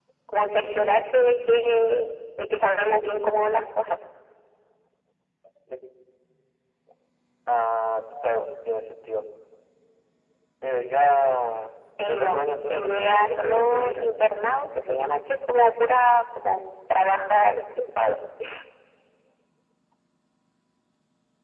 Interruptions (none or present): present